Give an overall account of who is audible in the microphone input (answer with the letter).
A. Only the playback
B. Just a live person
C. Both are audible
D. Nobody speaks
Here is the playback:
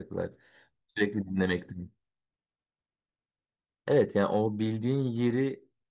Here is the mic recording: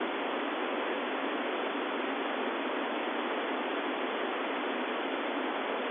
D